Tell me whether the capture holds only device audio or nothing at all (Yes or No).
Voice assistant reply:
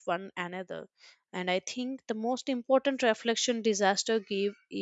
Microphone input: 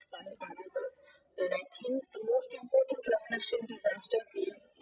Yes